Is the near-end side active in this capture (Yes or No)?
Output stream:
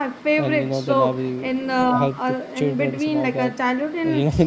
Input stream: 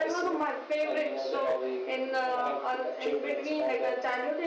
No